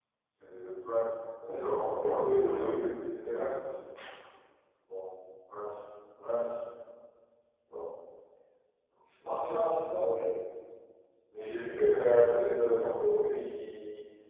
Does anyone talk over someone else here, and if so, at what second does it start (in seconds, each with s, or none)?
1.4 s